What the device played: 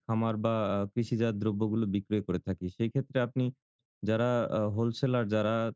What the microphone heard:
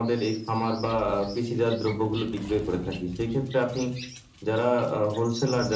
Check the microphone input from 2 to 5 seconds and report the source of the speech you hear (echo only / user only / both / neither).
echo only